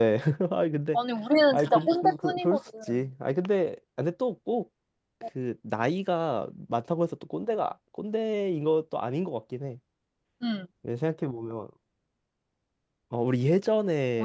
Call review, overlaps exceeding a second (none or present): present